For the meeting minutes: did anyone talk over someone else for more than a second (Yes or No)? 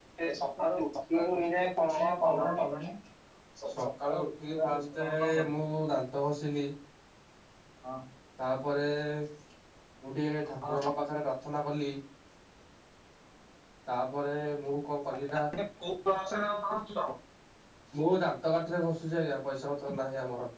Yes